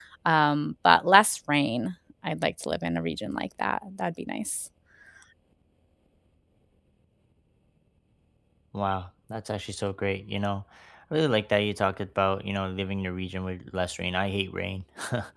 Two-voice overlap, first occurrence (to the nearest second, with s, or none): none